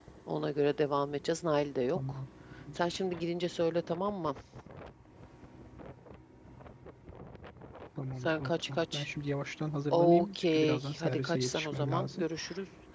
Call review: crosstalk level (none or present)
present